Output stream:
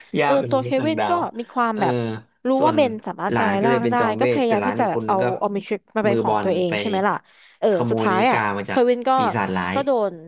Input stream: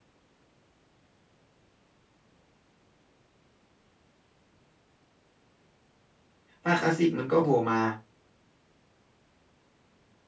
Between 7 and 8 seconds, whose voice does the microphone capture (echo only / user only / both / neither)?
user only